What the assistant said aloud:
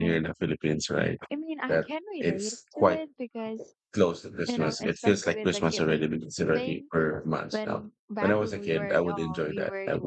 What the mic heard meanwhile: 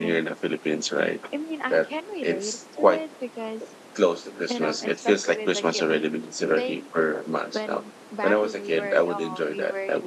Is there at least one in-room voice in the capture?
No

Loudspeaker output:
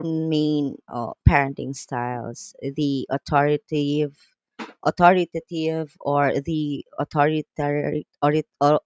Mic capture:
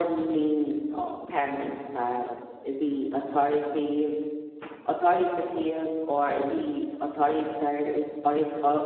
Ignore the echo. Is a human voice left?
No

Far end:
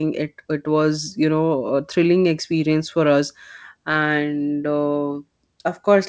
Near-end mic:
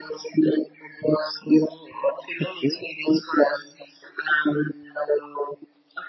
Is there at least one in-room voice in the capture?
Yes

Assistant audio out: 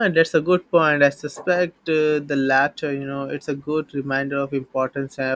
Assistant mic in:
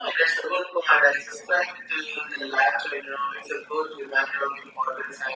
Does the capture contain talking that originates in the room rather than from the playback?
No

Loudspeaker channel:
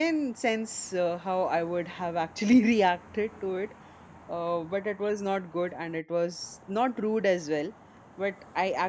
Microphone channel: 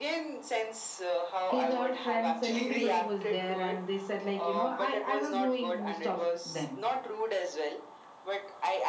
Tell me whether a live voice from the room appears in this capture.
Yes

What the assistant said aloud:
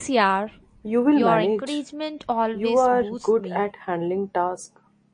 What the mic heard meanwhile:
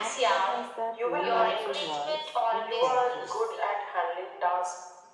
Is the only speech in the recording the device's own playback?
No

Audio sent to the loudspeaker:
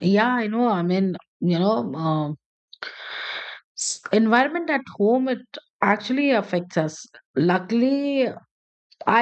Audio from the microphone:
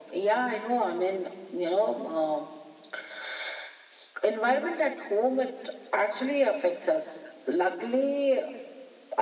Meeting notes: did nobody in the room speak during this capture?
Yes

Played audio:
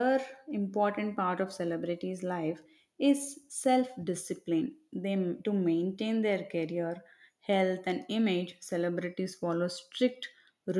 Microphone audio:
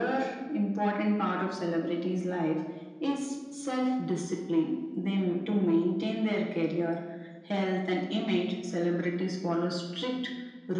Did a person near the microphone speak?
No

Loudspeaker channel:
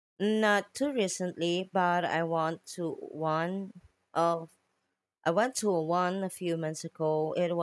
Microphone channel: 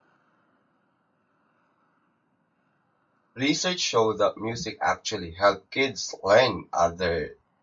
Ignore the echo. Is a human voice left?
Yes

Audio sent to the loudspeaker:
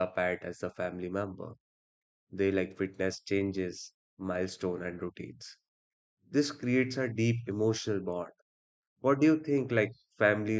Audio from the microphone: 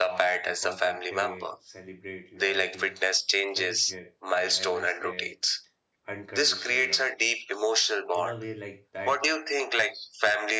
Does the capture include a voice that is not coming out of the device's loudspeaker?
Yes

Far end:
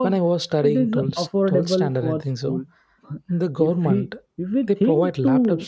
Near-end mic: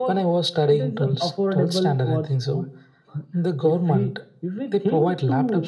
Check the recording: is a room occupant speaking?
No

